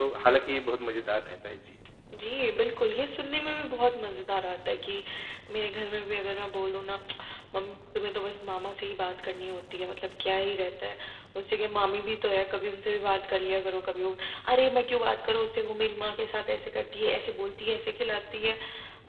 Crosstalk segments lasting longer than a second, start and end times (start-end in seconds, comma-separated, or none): none